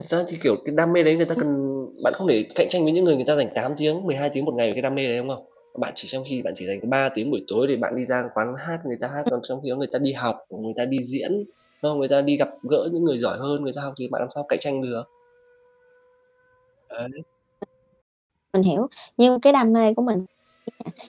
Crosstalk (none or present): none